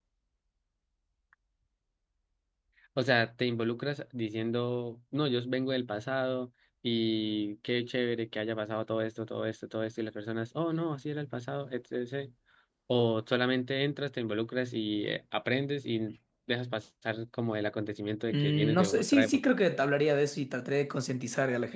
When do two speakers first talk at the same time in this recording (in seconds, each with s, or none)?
18.3 s